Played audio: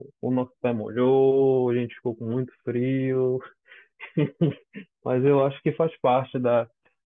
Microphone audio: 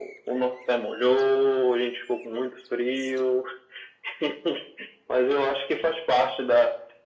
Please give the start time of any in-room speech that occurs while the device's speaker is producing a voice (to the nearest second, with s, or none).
none